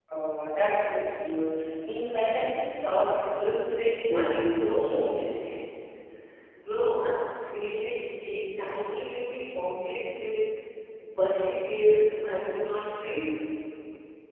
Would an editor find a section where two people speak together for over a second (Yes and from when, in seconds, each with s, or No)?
Yes, from 4.1 s